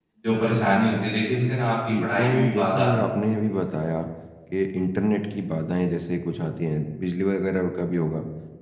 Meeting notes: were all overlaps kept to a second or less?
No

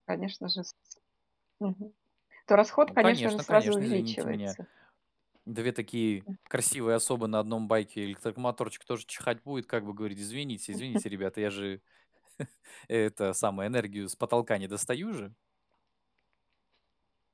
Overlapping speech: Yes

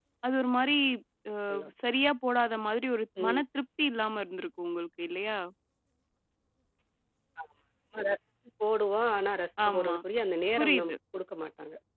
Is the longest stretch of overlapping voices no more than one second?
Yes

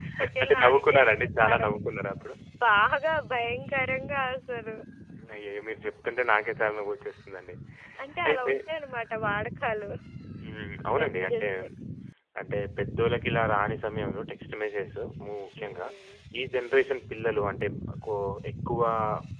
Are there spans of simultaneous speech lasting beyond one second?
Yes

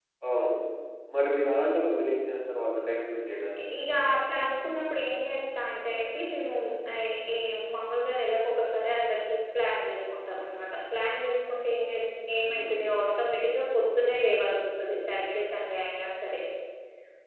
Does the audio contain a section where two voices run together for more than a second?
No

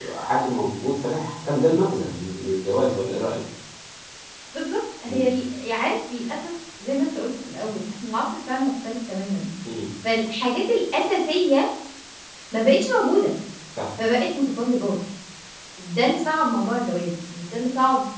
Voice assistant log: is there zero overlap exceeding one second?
Yes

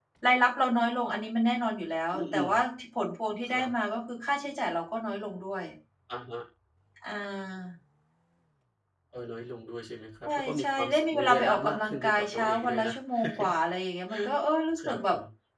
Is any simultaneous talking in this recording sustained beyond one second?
Yes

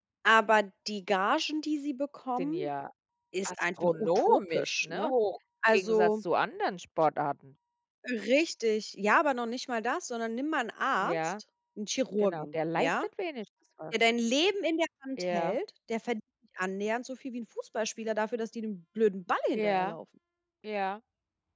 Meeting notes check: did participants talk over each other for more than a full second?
Yes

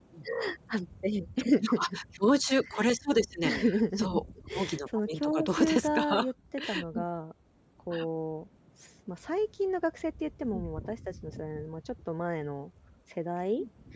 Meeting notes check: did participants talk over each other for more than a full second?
Yes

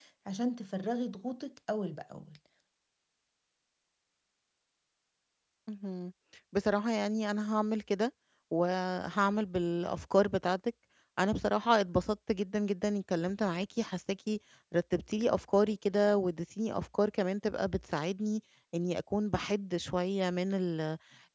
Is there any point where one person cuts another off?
No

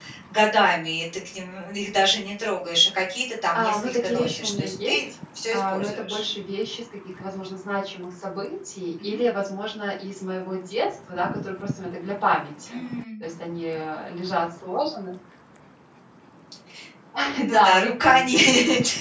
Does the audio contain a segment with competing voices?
Yes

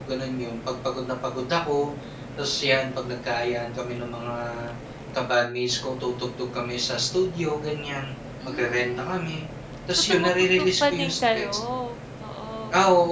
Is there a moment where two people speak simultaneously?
Yes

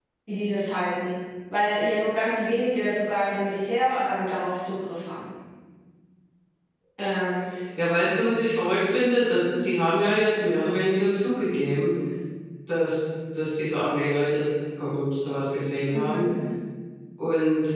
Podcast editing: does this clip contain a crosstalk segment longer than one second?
No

